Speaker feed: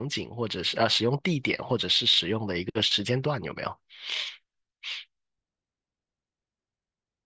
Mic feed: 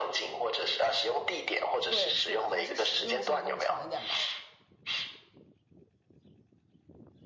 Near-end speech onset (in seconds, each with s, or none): 1.9 s